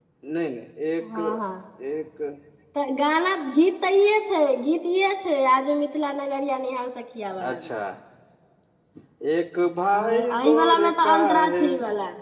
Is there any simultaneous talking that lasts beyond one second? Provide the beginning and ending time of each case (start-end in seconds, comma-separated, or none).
9.9-11.6